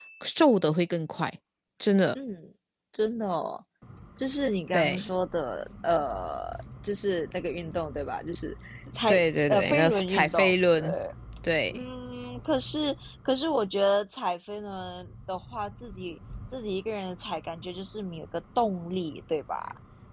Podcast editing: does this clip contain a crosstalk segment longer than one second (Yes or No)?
Yes